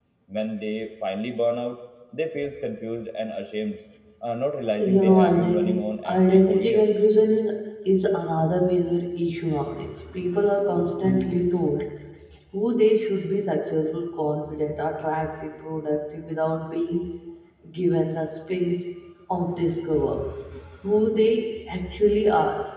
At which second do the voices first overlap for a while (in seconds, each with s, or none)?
4.9 s